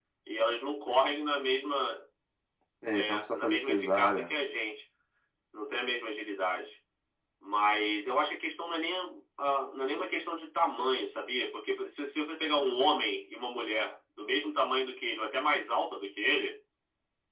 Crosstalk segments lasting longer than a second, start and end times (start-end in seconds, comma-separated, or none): 2.9-4.3